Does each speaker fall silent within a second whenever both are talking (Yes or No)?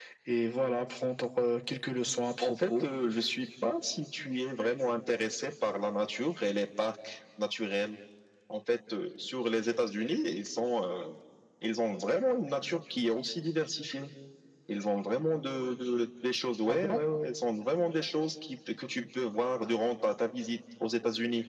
Yes